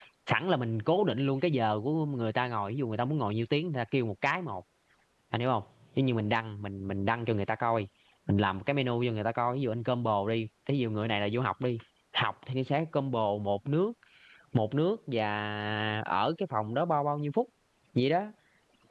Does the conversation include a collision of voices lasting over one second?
No

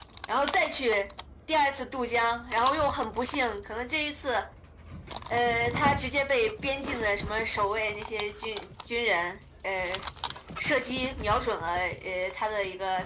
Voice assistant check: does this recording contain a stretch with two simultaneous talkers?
No

